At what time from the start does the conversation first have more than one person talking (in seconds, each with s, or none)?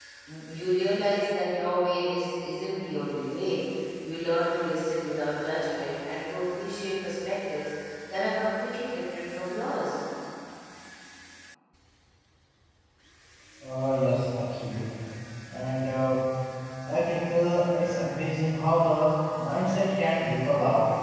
none